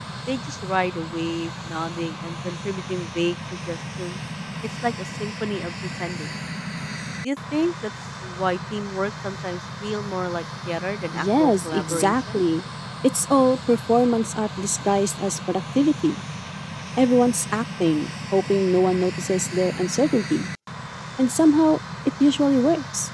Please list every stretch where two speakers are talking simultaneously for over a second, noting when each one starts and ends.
11.1-12.4

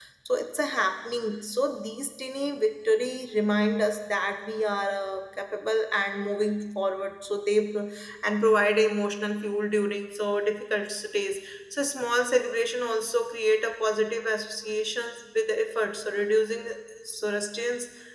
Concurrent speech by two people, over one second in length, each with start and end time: none

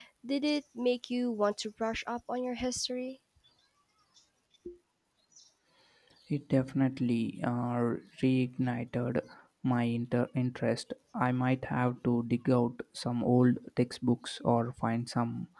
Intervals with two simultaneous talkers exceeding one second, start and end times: none

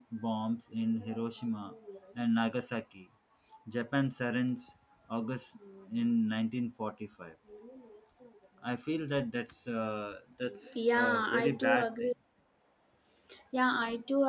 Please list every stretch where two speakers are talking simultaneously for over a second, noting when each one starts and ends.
10.7-12.1

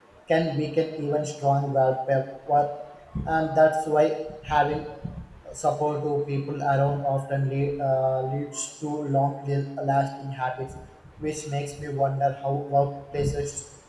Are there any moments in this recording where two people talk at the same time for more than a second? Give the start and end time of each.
none

